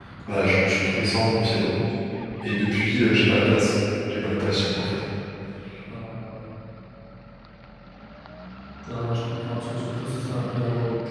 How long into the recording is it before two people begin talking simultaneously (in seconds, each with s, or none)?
none